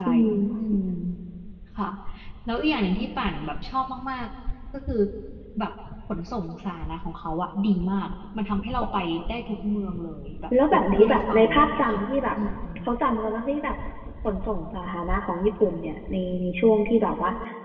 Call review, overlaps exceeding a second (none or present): present